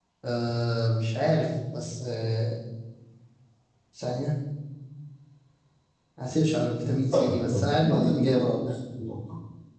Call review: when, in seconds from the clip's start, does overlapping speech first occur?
7 s

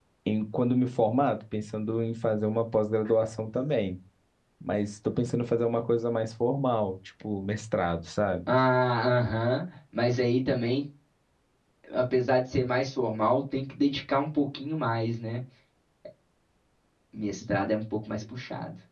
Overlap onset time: none

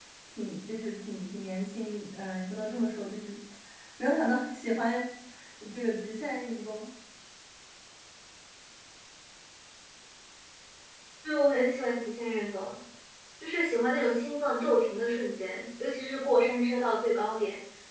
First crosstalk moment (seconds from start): none

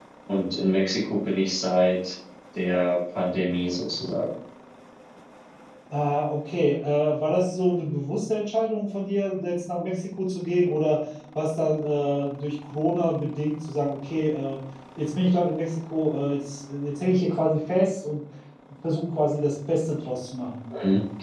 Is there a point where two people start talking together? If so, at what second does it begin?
none

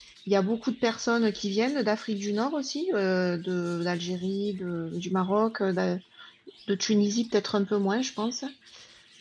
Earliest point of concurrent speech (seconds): none

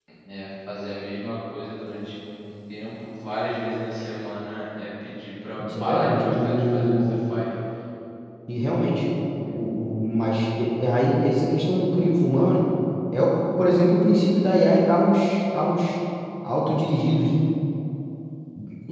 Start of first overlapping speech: 6 s

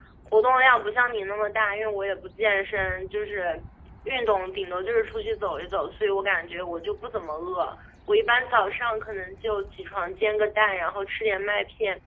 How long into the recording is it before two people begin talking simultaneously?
none

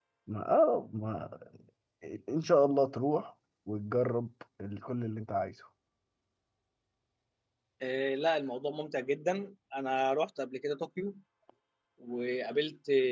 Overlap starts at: none

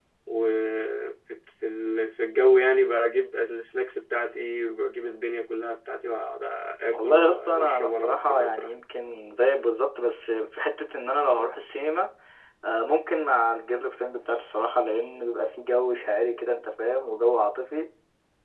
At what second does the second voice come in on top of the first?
7 s

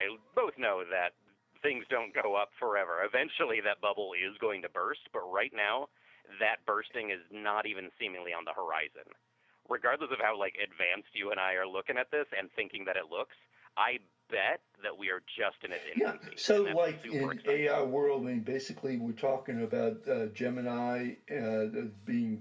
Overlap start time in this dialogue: 16 s

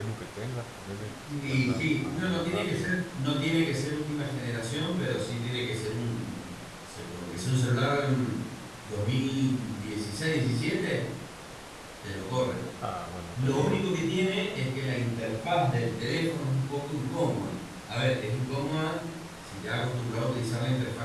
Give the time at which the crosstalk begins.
1 s

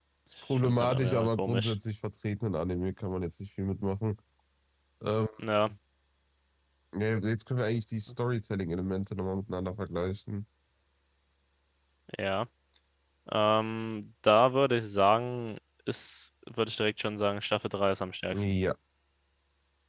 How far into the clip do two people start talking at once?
1 s

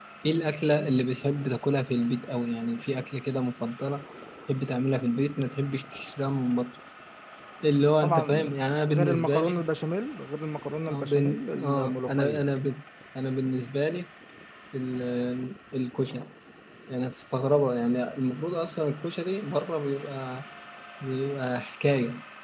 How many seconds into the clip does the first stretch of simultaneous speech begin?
8 s

